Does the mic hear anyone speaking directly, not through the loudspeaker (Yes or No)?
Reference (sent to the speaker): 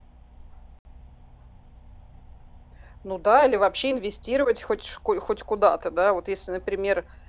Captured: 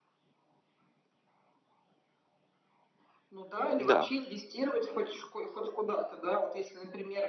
Yes